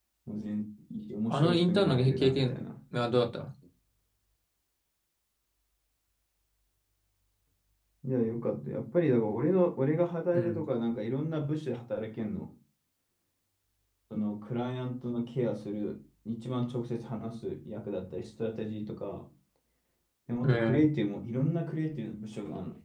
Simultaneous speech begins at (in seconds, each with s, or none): 1.3 s